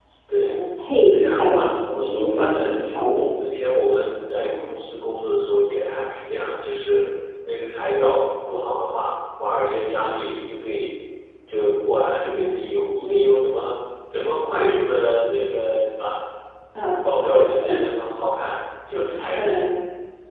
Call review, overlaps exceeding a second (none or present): present